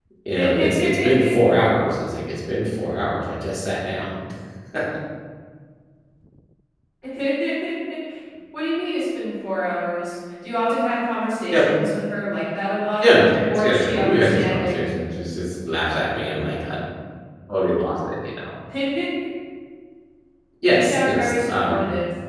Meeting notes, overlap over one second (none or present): present